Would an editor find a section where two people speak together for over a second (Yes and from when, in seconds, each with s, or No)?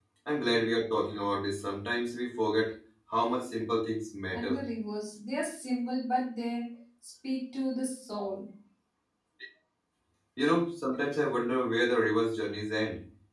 No